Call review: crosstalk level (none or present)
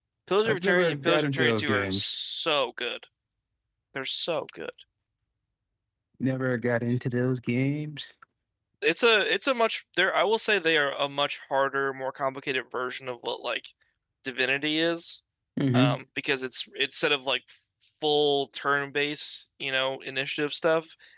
present